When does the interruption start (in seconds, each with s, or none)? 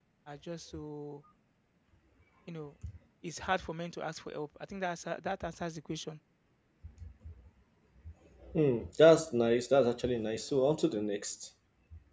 none